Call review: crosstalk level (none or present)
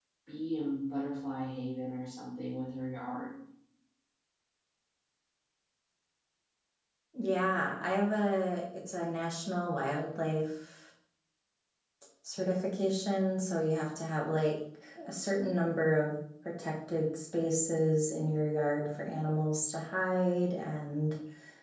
none